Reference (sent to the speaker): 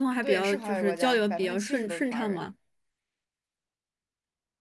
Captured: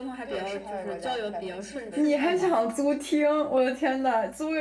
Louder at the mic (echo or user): user